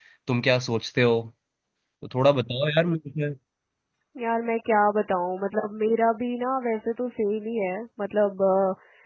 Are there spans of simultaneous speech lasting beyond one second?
No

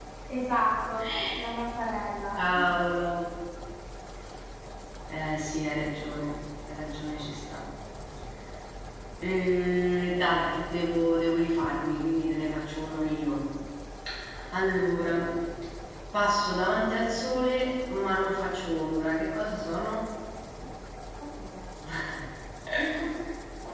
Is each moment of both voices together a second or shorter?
Yes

